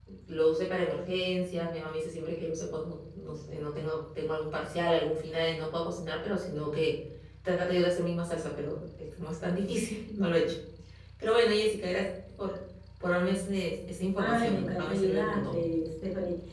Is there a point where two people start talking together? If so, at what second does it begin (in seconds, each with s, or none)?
14.2 s